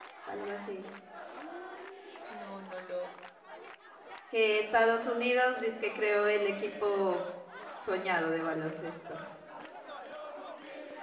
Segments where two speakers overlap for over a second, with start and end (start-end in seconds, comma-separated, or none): none